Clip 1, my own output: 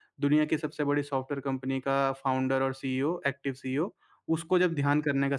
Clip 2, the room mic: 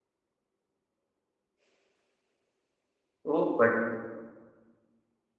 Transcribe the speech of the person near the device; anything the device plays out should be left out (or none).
ओह! बढ़िया।